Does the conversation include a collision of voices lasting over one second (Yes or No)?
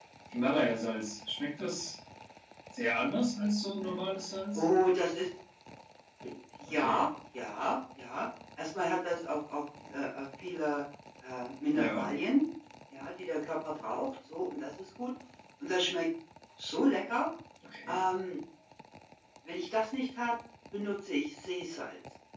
No